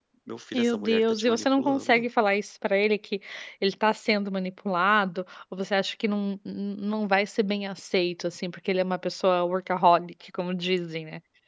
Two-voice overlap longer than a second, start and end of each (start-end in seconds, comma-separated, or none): 0.5-2.0